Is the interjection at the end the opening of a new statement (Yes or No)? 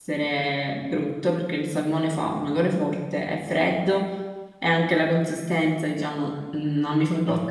Yes